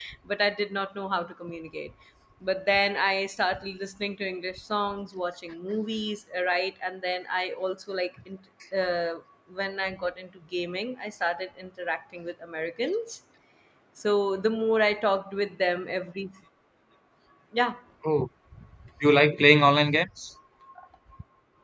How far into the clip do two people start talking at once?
none

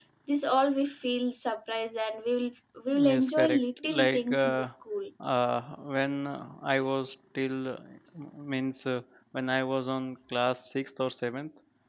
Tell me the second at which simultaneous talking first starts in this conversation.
2.9 s

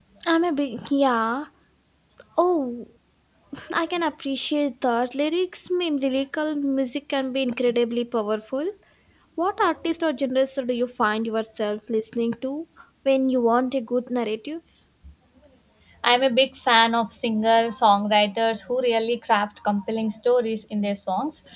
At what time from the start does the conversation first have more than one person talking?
none

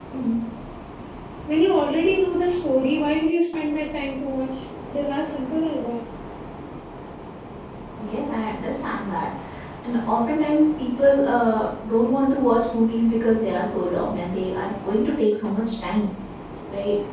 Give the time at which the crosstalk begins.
none

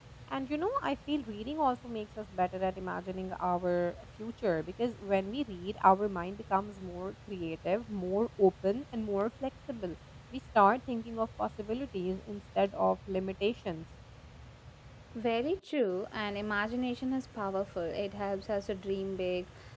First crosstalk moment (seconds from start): none

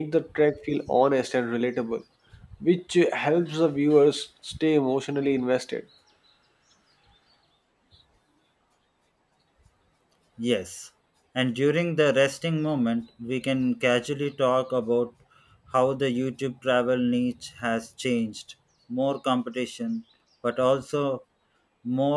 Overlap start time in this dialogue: none

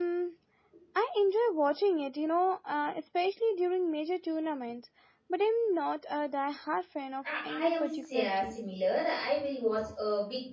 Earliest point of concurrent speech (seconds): 7.2 s

